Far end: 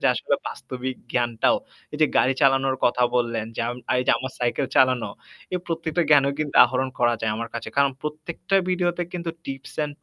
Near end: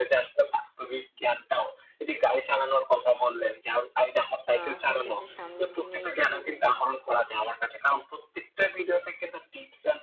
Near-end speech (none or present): present